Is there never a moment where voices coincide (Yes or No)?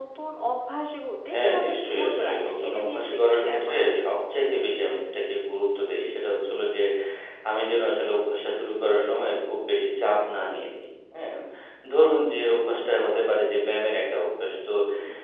No